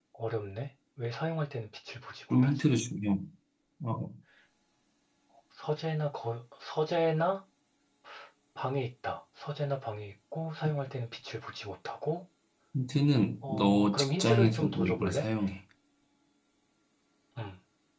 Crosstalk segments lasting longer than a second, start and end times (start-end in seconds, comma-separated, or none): 13.5-15.2